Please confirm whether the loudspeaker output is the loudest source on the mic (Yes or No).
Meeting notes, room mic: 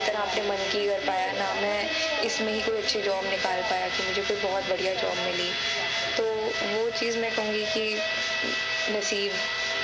Yes